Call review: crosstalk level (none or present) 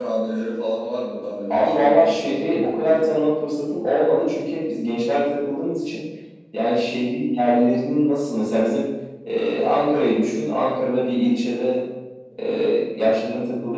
present